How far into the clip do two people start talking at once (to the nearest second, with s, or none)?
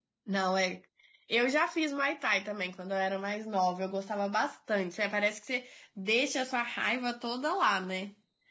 none